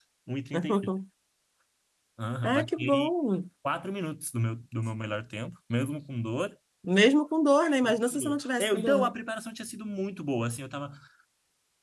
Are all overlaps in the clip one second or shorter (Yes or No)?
No